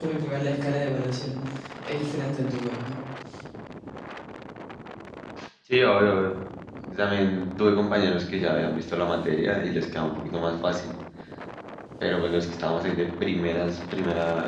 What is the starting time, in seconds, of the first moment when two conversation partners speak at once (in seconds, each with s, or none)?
none